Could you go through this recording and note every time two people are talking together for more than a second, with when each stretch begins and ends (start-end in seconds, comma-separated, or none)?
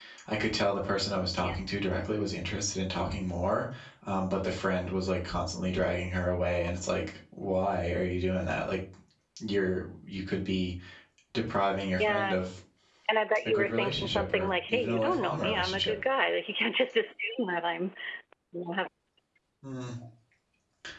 13.4-15.9